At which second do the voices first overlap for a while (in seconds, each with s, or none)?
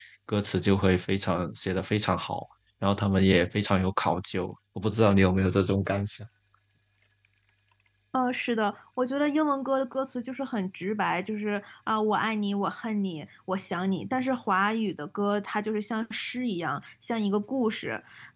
none